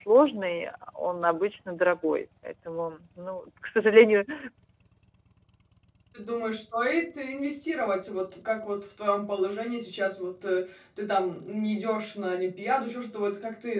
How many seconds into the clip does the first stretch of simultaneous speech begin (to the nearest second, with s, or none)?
none